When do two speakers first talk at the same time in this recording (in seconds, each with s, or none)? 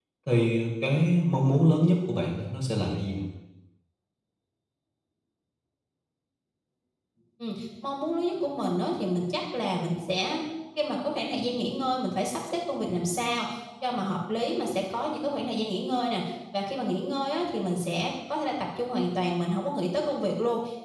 none